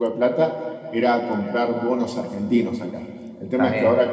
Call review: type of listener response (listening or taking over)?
listening